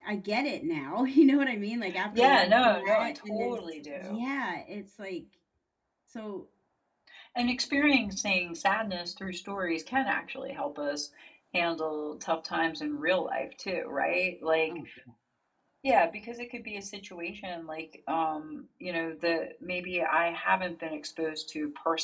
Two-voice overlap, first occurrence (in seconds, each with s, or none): 1.9 s